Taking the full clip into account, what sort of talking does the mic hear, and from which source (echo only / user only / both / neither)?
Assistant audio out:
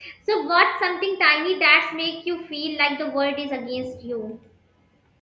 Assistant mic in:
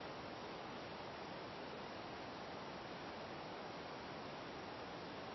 neither